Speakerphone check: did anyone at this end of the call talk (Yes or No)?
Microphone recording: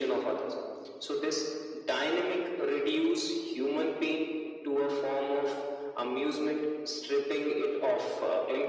No